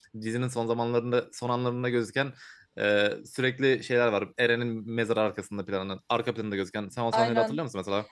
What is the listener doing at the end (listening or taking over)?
taking over